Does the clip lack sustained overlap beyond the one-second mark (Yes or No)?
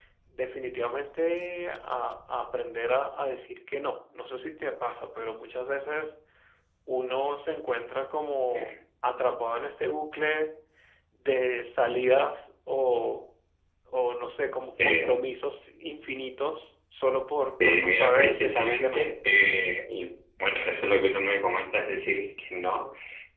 No